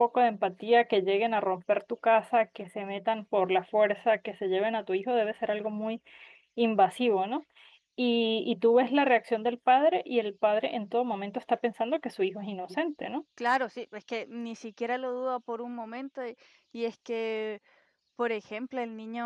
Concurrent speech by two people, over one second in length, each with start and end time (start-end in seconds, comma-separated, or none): none